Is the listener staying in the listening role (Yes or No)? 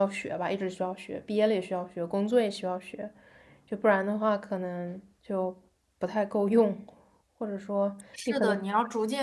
No